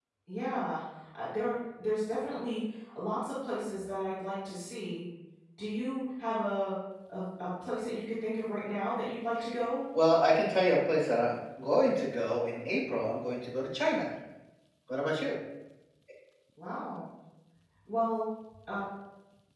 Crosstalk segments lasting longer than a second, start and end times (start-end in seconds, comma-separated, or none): none